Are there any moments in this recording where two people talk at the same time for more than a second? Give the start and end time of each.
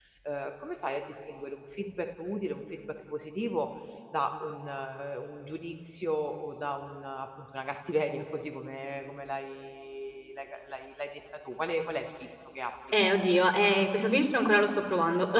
none

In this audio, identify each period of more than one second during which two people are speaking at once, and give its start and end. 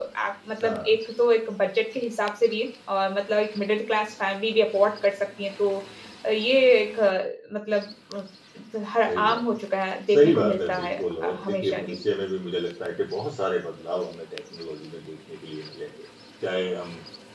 10.1-11.9

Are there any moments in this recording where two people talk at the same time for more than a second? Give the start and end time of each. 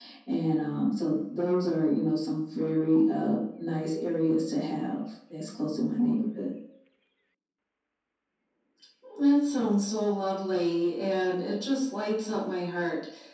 none

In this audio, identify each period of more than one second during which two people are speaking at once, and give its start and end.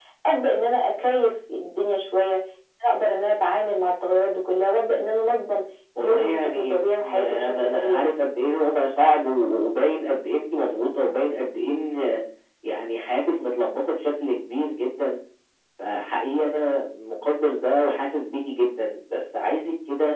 6.0-8.1

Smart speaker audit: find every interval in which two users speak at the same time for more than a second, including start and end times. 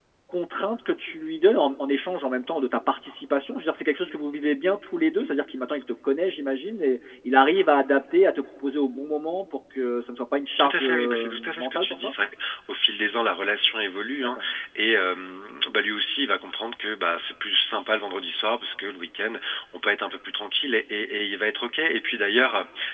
10.6-12.1

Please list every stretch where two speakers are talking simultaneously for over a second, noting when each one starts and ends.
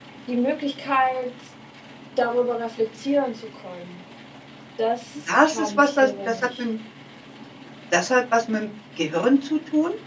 5.3-6.6

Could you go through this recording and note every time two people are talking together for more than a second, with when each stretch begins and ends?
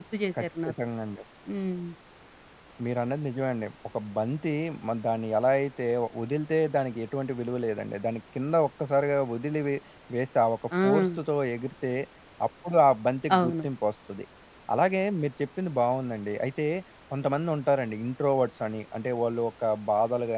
none

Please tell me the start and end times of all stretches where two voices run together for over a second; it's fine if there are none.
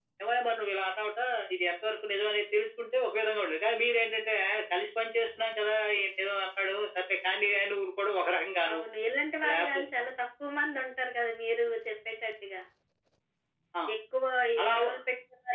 none

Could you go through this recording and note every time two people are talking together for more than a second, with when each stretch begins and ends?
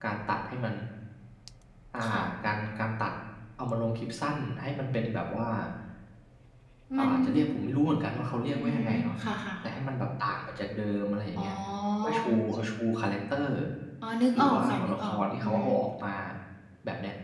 14.4-15.6

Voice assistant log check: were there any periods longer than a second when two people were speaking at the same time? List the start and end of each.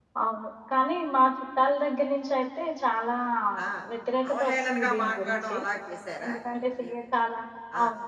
4.3-5.6

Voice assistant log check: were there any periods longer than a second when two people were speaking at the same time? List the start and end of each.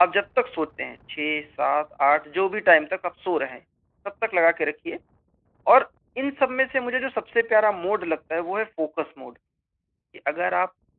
none

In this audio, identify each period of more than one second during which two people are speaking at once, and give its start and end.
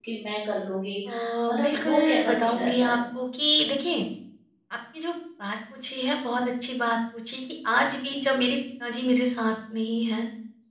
1.6-3.0

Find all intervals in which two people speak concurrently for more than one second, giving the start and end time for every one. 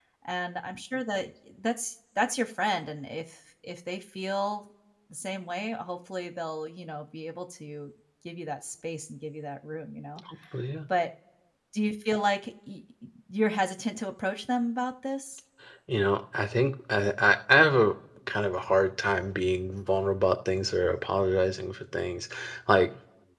none

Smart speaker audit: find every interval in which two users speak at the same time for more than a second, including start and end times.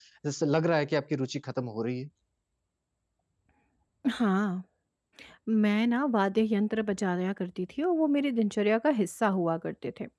none

